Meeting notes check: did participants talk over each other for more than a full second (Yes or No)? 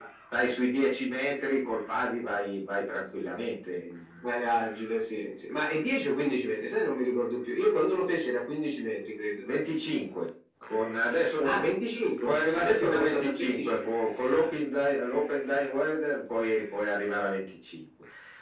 Yes